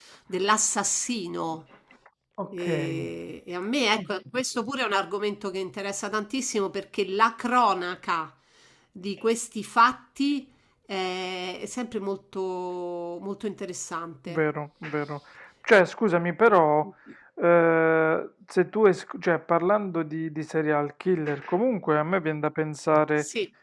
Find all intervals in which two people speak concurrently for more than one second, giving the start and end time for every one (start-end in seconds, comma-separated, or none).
none